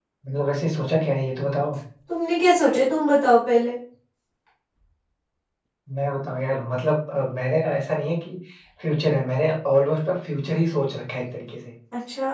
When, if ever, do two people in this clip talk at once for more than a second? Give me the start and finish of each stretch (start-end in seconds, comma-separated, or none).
none